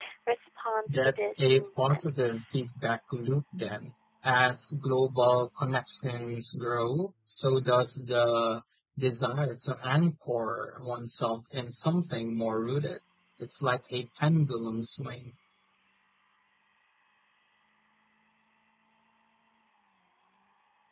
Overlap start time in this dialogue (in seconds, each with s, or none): 0.9 s